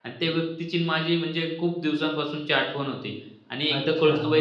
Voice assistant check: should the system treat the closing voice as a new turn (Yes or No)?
No